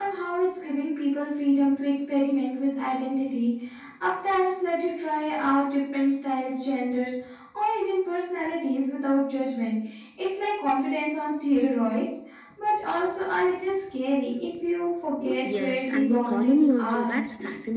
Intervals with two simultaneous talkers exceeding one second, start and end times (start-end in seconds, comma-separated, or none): 15.4-17.2